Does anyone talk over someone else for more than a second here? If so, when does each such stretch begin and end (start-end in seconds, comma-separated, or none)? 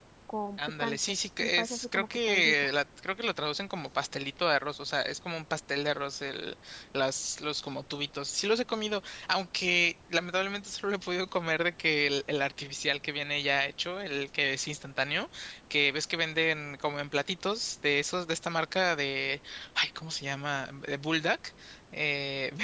0.8-2.5